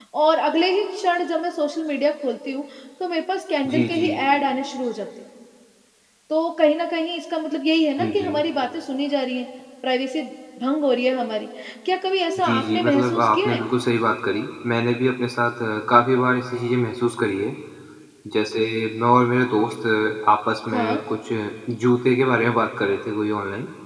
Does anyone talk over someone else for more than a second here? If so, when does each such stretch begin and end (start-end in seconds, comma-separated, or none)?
12.4-13.7